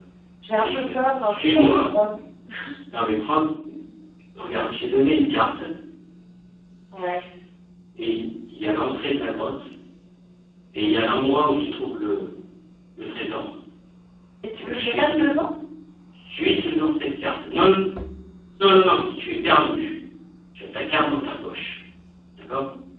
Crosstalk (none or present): present